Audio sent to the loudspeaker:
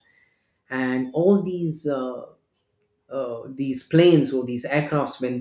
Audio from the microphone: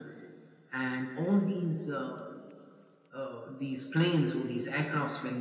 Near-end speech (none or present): none